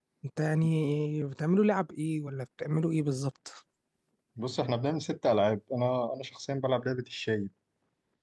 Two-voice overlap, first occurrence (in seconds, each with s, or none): none